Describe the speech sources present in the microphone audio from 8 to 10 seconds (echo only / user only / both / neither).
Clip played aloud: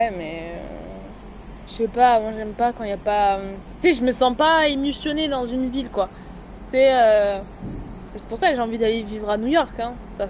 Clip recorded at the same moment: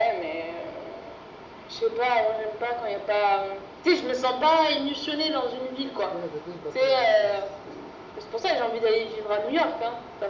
echo only